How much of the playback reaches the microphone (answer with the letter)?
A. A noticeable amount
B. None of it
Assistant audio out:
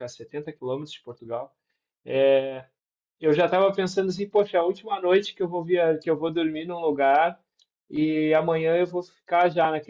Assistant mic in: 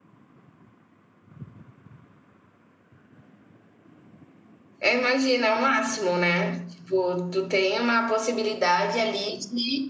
B